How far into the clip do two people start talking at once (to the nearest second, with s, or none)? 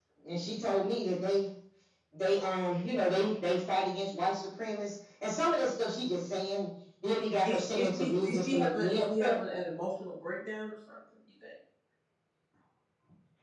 7 s